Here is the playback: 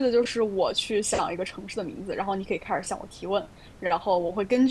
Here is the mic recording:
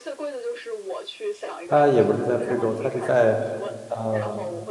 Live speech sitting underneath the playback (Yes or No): No